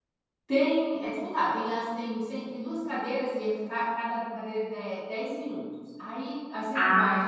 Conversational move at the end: listening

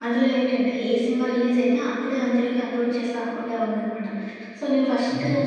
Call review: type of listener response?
listening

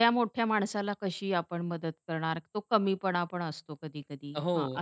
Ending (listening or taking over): taking over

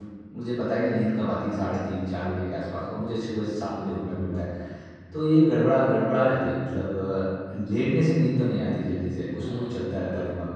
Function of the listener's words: taking over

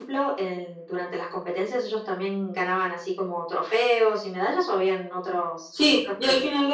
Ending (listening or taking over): taking over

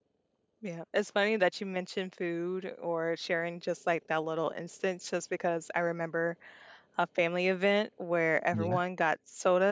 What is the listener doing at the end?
listening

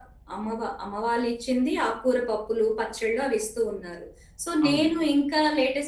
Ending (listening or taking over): listening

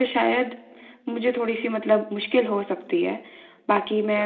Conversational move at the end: listening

